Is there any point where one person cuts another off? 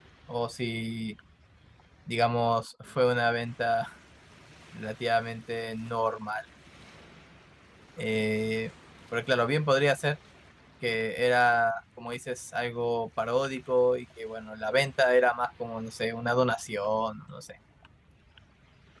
No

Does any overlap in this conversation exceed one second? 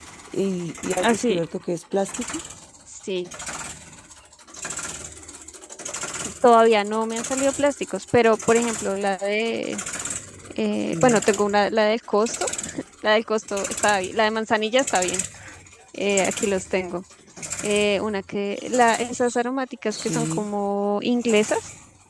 No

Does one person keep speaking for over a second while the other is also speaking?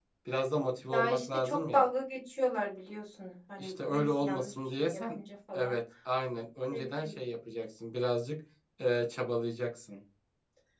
Yes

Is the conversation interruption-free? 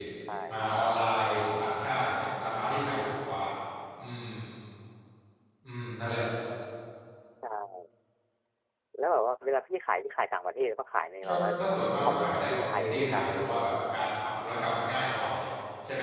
No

